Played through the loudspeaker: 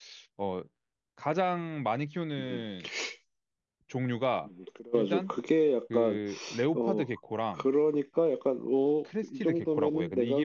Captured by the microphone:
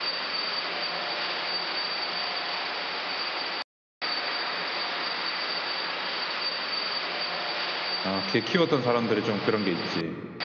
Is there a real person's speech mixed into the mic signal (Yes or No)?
Yes